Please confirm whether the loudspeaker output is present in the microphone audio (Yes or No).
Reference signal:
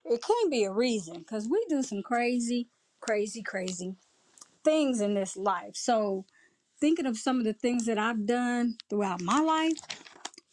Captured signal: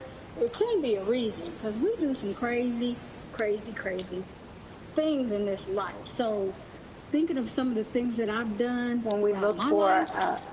Yes